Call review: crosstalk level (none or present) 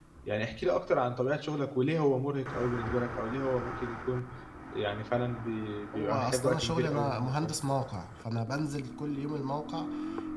present